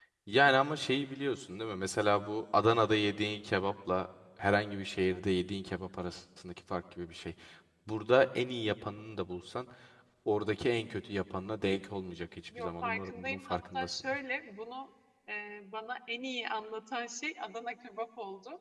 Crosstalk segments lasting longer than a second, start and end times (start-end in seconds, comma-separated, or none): 12.6-14.2